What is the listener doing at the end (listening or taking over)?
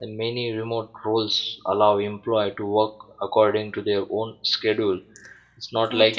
listening